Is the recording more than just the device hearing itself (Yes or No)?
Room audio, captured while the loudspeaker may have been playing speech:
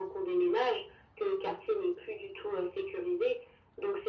No